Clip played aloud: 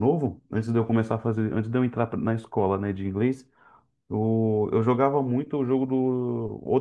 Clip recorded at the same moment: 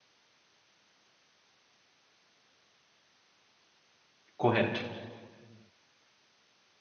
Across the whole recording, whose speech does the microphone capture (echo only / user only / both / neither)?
user only